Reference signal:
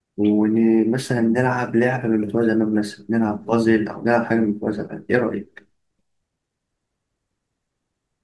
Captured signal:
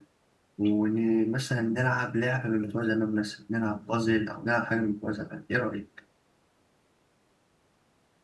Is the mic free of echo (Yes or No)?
No